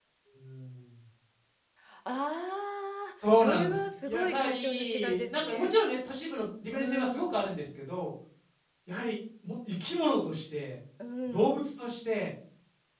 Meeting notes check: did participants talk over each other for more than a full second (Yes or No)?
Yes